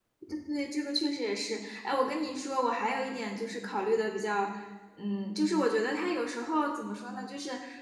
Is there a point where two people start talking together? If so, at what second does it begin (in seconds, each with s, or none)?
none